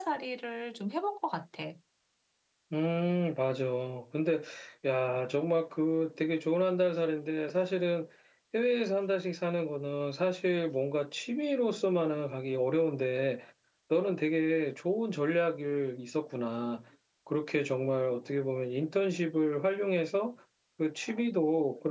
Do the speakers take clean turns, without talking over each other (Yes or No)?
Yes